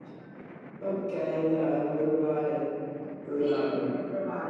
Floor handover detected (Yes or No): Yes